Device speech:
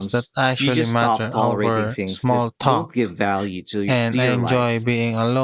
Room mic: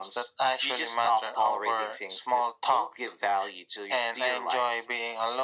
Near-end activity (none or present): none